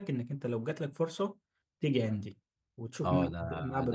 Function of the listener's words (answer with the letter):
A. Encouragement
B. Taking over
B